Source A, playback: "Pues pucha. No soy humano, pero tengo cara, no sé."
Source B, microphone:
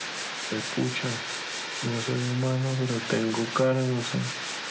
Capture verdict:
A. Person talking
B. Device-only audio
B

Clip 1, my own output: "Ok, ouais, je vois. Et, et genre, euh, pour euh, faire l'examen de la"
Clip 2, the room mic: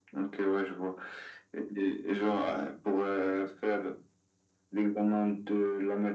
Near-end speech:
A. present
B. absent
B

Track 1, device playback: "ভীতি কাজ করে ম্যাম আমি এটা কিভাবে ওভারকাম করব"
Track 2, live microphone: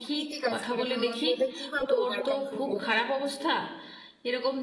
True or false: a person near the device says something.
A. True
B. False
A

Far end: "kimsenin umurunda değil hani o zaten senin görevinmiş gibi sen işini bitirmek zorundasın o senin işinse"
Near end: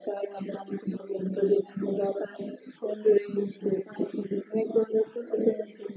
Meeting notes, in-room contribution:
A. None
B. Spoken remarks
A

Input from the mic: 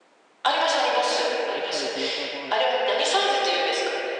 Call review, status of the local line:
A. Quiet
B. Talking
B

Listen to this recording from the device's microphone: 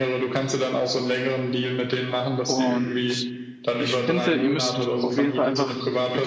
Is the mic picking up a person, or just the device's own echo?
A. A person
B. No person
A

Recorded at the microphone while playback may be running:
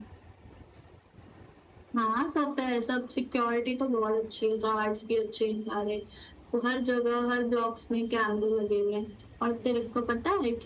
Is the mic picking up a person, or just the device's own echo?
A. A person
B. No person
B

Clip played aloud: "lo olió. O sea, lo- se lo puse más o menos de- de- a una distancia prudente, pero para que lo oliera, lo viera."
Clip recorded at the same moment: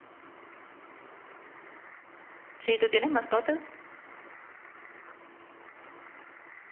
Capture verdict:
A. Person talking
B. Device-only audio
A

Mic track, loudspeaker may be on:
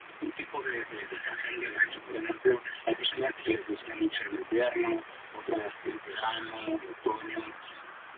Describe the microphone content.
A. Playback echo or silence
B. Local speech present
A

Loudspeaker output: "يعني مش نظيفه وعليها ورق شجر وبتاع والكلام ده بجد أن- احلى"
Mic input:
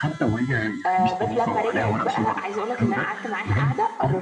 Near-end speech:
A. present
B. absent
A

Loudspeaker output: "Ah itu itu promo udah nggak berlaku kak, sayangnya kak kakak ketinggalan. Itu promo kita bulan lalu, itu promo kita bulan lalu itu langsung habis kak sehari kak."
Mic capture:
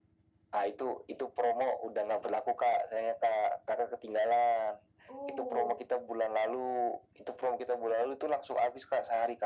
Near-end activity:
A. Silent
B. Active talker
B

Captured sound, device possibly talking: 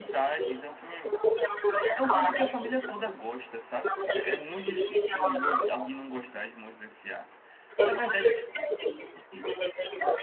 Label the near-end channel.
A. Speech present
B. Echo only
A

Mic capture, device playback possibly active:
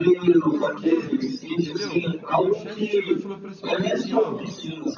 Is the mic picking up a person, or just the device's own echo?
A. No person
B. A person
B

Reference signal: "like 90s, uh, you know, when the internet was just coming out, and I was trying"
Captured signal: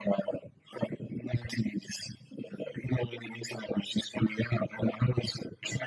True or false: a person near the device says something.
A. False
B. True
A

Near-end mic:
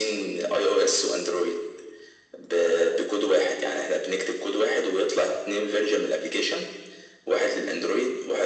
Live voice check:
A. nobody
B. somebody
A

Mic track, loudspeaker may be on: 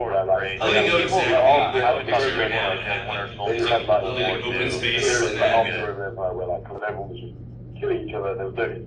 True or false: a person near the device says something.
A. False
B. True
B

